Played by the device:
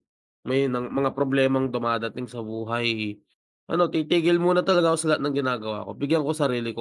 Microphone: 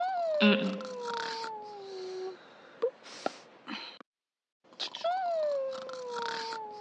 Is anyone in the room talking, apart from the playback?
Yes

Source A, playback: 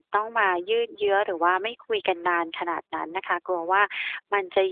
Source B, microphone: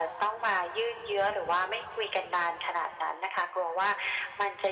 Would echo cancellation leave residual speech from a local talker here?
No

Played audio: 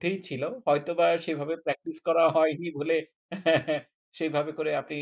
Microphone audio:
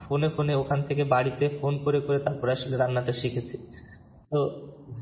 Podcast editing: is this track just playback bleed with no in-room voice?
No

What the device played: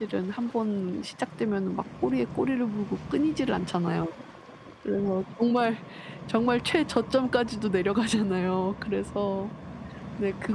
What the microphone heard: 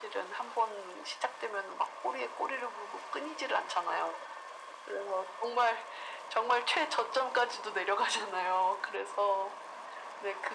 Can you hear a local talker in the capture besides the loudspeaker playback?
No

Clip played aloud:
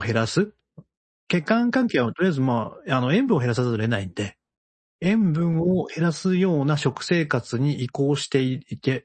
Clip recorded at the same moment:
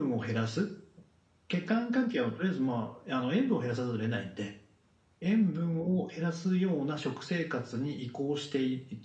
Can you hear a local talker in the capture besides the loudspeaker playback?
No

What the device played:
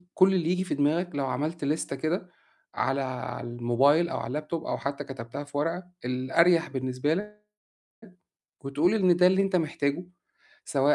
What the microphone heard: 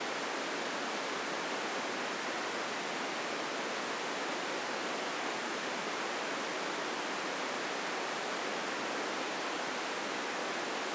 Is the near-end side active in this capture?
No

